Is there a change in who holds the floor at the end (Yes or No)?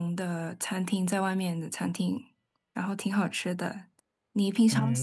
Yes